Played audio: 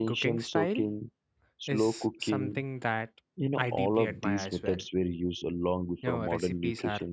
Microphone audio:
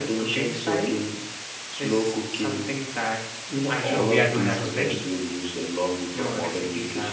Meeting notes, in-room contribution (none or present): present